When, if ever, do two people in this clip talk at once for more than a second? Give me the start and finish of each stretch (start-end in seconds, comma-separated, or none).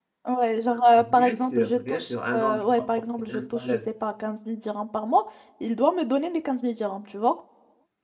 1.0-3.8